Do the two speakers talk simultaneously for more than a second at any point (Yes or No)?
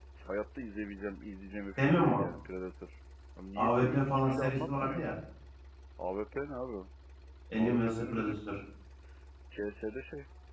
Yes